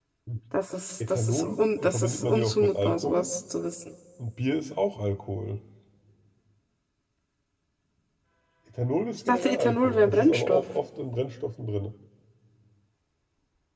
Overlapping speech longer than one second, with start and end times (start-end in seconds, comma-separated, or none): 1.1-3.3, 9.3-10.6